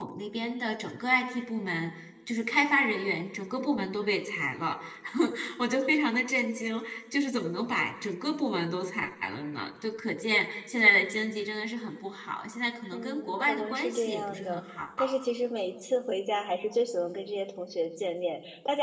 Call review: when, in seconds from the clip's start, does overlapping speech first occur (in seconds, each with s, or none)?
12.9 s